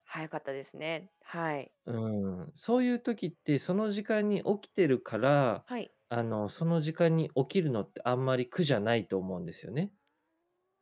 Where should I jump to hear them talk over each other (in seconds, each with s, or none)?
none